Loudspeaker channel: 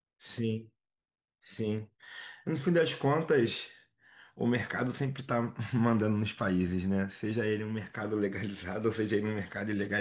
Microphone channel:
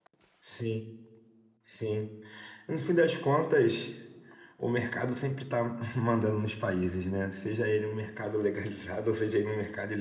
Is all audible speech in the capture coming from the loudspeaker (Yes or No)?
Yes